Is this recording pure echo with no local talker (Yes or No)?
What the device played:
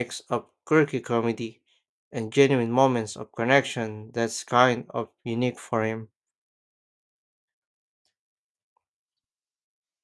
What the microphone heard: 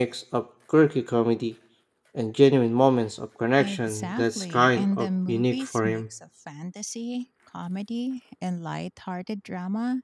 No